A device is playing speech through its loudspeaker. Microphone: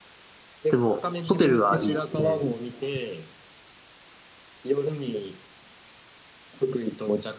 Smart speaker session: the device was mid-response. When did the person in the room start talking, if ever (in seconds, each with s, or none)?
0.7 s